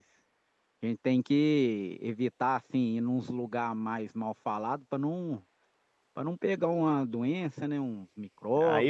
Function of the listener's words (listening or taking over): taking over